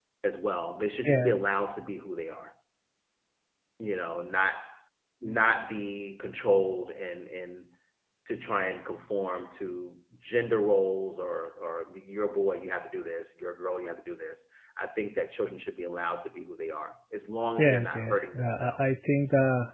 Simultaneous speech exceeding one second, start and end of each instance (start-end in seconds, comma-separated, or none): 17.6-18.9